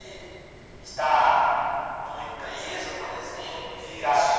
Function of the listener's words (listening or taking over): listening